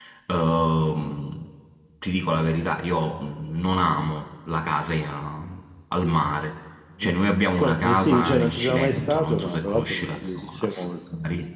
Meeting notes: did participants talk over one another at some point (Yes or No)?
Yes